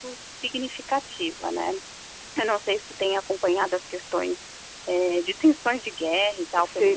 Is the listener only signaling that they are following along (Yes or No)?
No